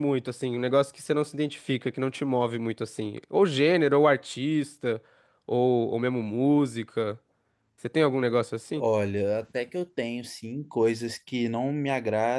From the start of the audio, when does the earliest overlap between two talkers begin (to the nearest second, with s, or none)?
none